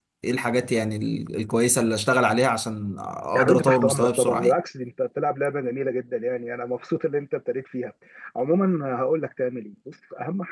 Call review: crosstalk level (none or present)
present